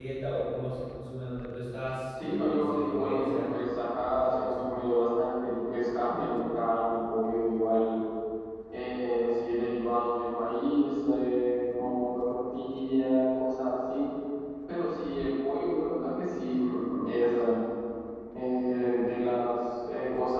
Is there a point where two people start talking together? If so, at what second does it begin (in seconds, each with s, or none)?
2.2 s